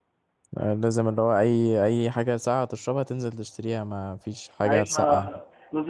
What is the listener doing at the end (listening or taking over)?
taking over